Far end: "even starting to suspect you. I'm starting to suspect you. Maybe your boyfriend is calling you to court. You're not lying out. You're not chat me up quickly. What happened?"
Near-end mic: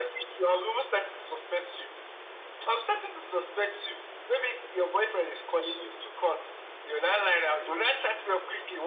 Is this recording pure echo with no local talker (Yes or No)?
Yes